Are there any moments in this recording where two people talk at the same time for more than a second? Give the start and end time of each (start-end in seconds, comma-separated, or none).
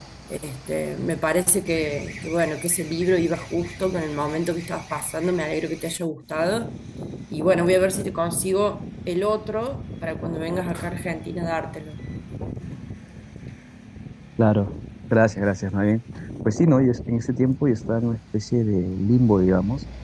none